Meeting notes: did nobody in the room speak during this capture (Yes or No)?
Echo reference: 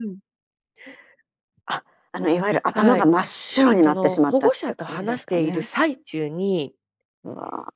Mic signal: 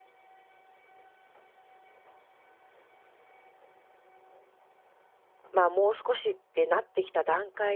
No